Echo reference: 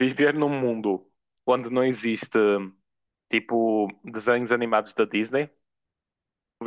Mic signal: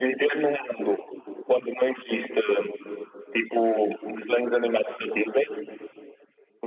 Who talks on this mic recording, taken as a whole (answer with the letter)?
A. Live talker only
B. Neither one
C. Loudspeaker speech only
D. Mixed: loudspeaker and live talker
C